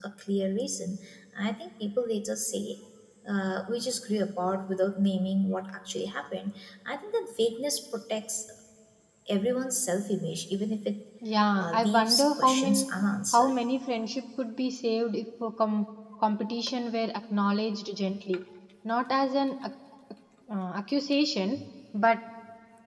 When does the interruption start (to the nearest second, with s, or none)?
12 s